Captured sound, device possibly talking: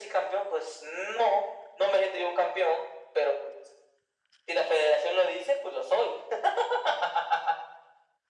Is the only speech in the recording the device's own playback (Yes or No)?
Yes